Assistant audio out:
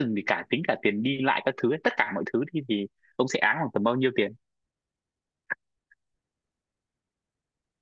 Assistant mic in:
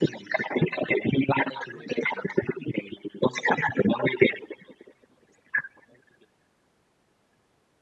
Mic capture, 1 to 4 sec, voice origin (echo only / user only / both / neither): echo only